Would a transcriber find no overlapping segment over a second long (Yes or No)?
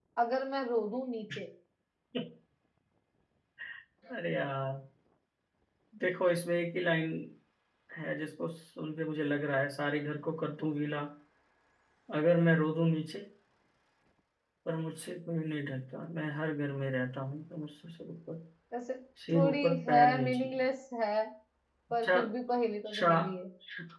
No